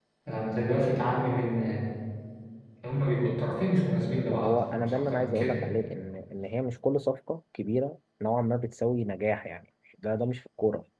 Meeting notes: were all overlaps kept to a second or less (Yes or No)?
No